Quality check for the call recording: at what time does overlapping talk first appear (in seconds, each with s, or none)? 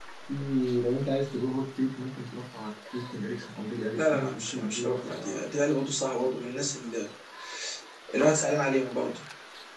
4.0 s